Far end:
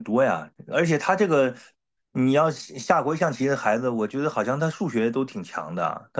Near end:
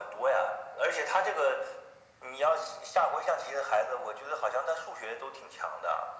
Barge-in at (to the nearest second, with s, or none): none